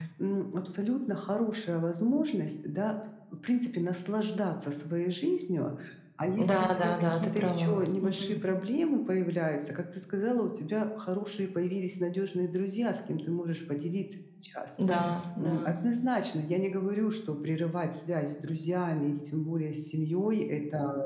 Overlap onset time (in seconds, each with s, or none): 6.4 s